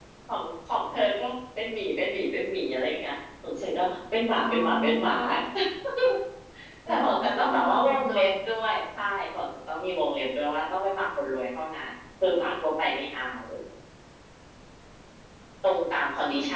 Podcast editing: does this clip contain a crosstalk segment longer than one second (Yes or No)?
Yes